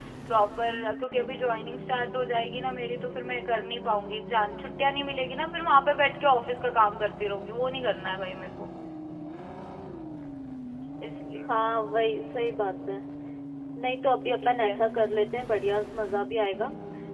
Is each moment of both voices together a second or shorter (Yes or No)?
Yes